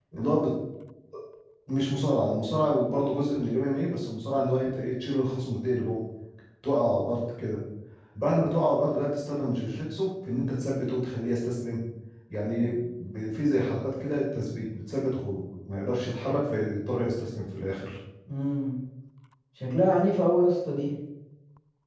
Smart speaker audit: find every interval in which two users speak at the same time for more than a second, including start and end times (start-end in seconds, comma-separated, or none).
none